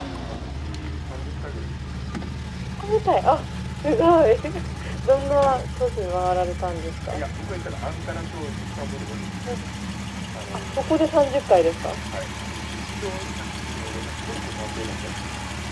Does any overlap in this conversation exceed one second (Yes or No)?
No